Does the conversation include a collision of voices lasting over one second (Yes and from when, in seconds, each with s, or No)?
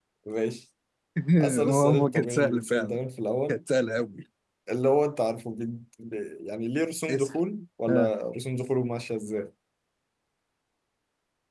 Yes, from 1.6 s